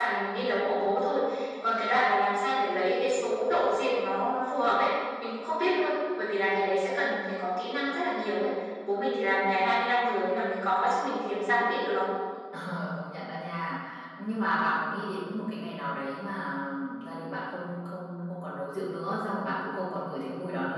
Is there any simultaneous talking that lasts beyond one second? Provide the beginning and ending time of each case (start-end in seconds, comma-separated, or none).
none